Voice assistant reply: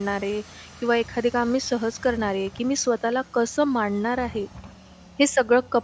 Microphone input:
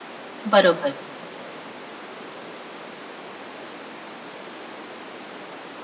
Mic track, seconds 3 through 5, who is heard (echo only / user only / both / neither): neither